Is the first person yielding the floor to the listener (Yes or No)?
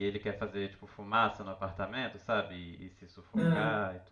No